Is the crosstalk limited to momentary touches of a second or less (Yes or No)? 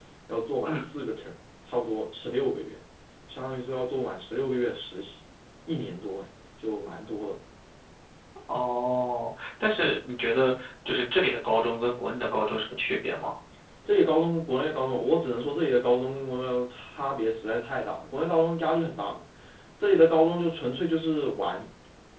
Yes